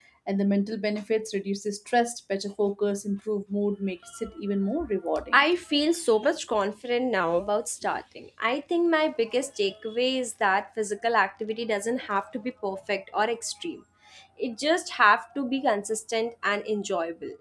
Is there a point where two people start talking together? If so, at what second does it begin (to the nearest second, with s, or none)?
none